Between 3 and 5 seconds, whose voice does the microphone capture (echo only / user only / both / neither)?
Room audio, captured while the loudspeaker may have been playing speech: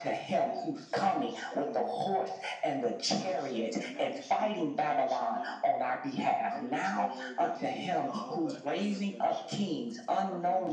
both